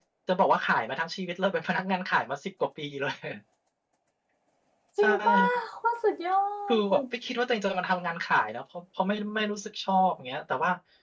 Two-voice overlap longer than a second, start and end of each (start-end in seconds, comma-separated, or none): none